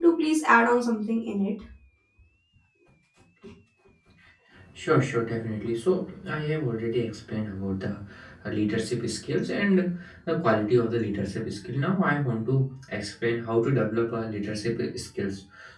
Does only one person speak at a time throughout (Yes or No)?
Yes